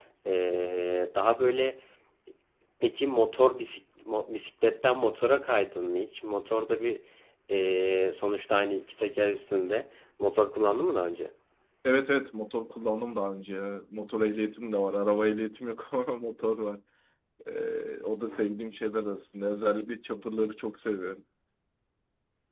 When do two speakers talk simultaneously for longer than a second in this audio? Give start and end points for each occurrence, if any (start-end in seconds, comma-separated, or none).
none